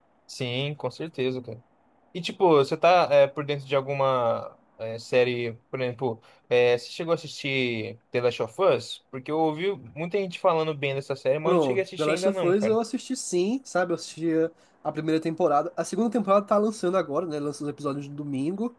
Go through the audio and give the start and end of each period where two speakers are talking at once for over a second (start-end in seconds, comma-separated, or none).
11.4-12.8